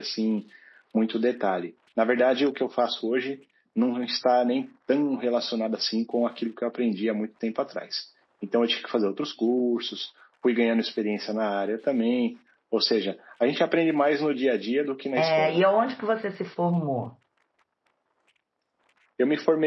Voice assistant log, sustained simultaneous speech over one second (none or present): none